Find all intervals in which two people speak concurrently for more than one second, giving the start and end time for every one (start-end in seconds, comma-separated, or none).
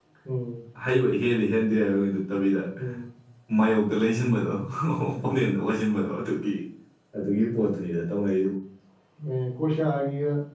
none